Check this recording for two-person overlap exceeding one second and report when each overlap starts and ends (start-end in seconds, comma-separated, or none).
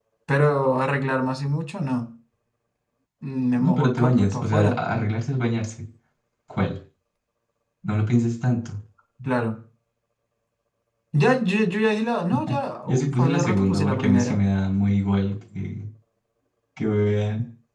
3.6-4.8, 12.9-14.4